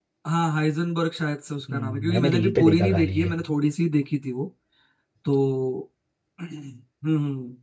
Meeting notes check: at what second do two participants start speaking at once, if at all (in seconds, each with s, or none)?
1.7 s